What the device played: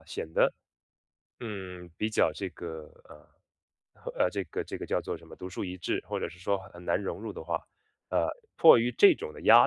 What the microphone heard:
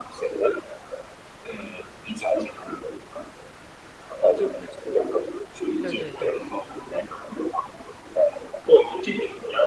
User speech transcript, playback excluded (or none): 对对对，